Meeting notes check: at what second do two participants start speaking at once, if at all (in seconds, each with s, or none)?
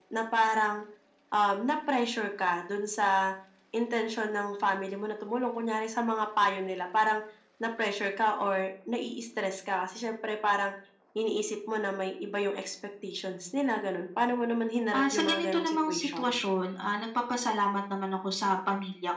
14.9 s